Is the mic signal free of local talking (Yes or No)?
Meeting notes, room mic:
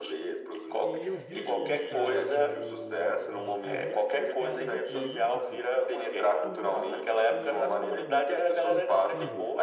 No